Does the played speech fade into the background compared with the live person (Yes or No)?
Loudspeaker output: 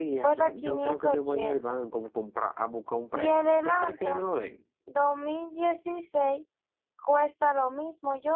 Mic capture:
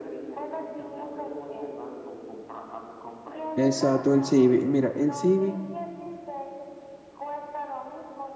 Yes